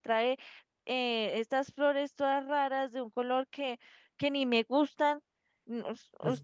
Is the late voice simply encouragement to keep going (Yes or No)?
No